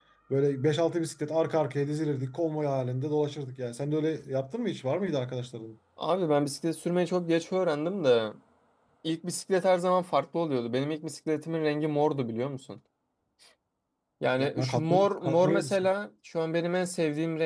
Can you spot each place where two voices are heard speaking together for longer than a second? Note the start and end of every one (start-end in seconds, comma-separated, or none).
14.4-15.9